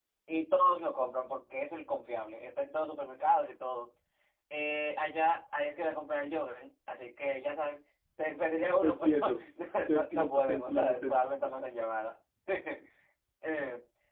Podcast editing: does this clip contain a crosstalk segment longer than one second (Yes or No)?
Yes